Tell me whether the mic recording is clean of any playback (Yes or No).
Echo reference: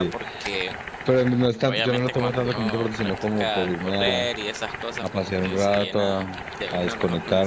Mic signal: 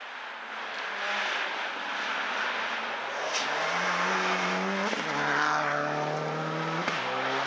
Yes